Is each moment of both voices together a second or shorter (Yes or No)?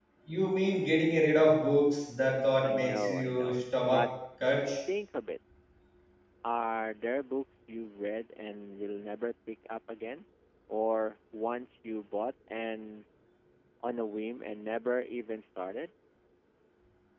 No